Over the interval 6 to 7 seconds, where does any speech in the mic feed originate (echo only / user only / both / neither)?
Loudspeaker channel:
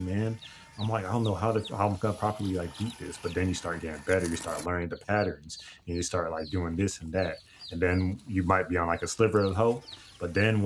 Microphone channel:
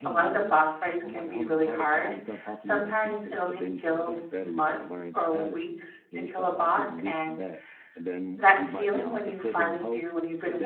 both